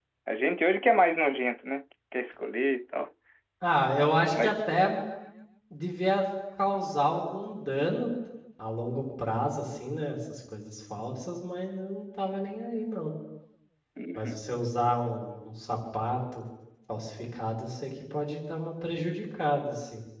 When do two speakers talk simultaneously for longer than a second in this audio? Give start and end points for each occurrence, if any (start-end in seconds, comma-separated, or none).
none